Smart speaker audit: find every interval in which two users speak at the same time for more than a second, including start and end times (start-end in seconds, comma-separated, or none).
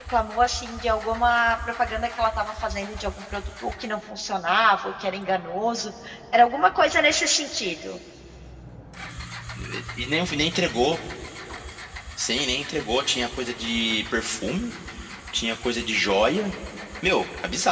none